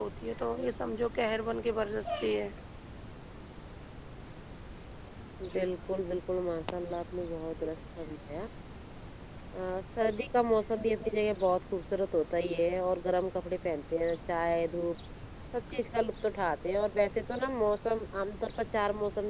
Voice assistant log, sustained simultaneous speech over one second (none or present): none